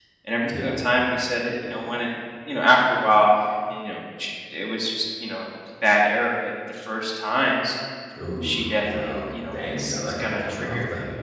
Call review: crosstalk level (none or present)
present